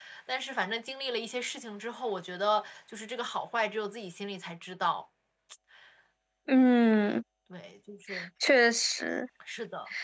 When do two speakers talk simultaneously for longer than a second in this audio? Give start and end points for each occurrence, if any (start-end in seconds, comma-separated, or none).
none